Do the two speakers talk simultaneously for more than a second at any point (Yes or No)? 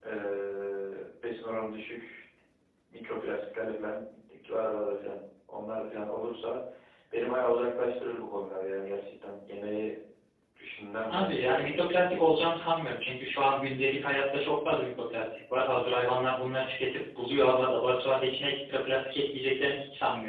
Yes